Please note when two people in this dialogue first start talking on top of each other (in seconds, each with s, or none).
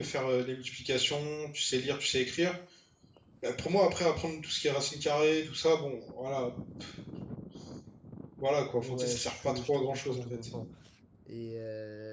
8.8 s